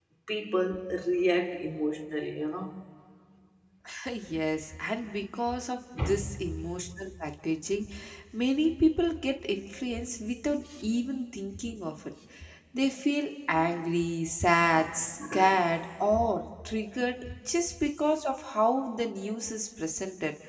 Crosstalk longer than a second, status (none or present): none